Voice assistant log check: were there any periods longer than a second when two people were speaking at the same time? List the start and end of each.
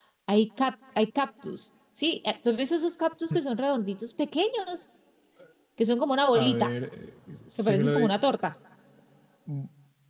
none

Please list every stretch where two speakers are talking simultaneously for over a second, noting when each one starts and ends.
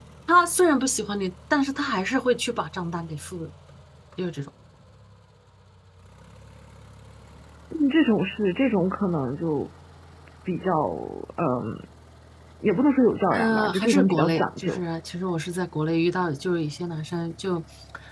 13.3-14.8

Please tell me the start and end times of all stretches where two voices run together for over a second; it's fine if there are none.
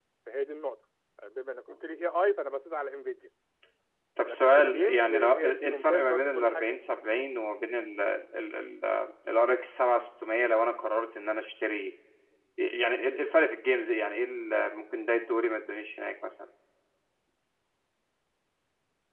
4.2-6.6

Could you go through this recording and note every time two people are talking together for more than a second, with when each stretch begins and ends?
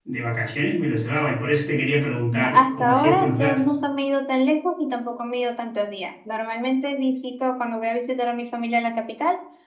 2.3-3.7

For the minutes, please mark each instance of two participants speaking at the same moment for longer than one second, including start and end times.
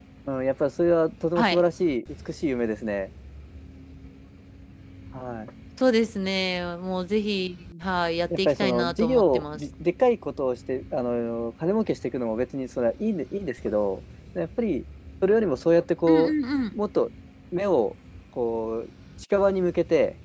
8.4-9.6

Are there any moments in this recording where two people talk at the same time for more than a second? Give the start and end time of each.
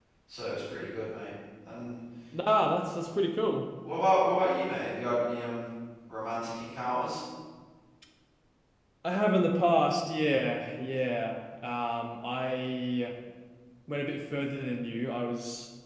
none

